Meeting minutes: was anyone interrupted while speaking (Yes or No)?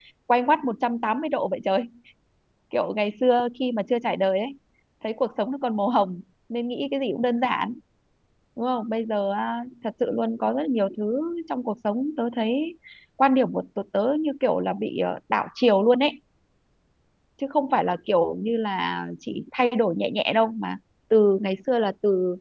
No